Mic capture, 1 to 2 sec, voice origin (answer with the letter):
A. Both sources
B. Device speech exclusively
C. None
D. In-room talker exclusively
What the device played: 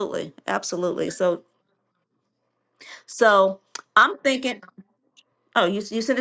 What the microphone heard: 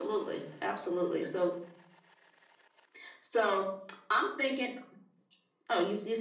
B